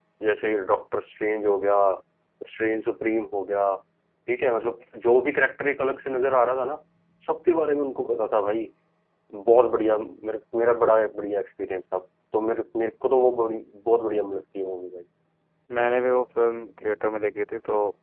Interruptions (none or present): none